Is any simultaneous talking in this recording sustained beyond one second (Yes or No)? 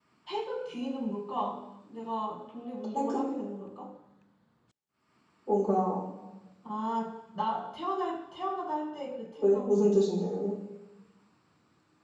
No